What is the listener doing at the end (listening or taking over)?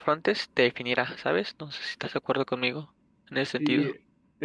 taking over